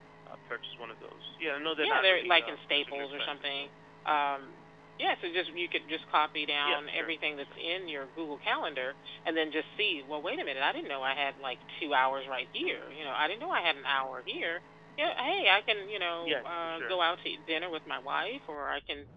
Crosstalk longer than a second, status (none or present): present